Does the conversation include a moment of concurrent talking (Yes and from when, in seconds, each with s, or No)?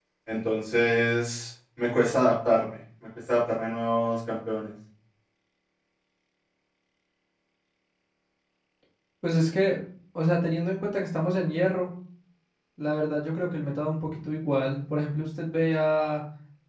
No